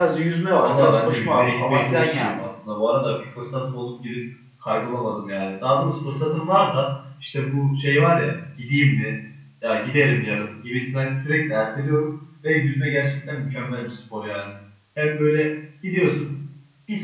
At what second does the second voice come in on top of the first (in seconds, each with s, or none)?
0.6 s